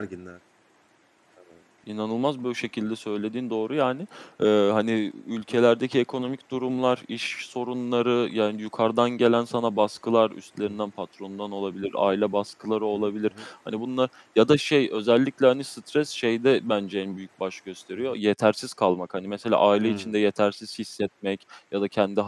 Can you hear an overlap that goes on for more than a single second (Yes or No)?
No